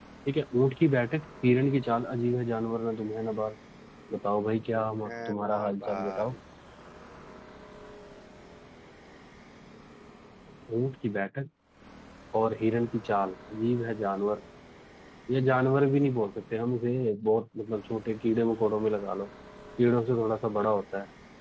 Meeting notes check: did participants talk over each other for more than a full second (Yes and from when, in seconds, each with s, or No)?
Yes, from 4.8 s